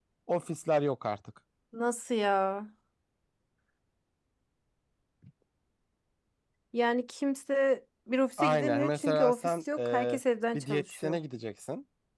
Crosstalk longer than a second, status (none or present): present